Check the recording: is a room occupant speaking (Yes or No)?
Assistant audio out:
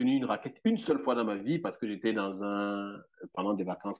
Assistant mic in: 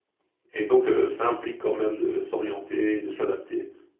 Yes